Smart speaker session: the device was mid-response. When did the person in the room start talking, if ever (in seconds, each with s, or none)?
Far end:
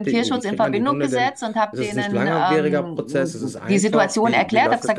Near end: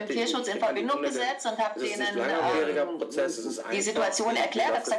2.4 s